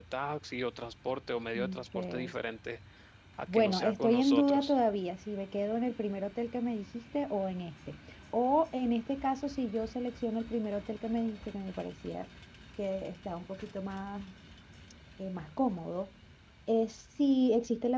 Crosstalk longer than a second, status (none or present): present